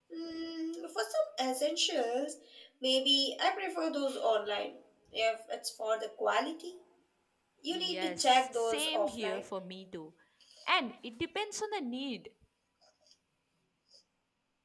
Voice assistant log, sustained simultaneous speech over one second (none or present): present